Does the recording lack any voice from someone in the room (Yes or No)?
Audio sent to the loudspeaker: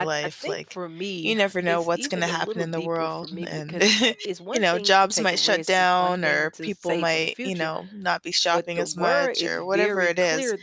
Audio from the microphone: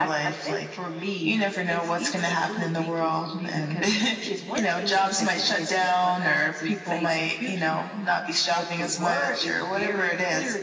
Yes